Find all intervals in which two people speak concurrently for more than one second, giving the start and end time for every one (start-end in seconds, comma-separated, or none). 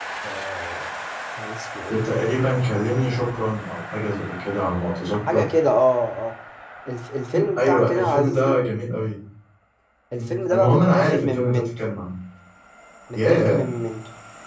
7.3-8.6, 10.2-11.8